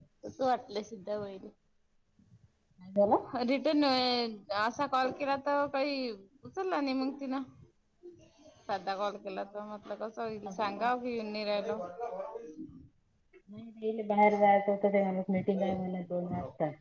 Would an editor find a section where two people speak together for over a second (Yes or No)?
No